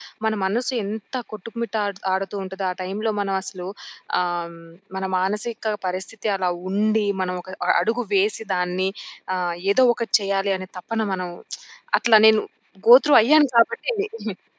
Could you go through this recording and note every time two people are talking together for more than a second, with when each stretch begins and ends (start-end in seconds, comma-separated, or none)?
none